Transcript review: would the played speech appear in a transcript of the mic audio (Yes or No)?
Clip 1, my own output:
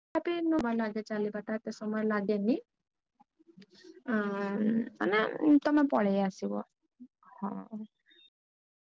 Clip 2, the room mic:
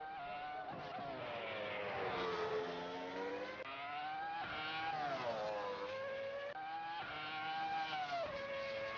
No